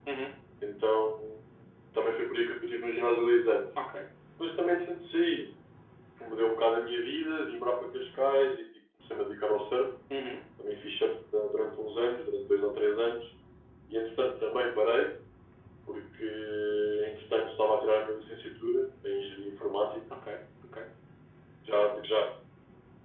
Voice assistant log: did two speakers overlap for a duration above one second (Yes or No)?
No